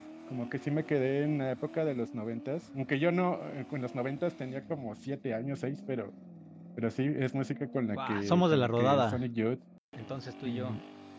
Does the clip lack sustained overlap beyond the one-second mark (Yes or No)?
No